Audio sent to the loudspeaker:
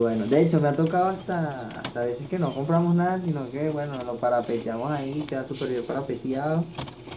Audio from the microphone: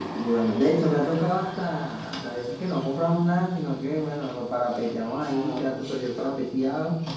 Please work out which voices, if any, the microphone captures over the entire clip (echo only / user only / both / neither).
both